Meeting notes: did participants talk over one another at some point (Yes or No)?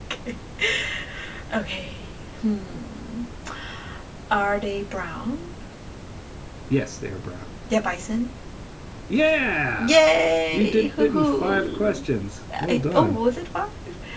Yes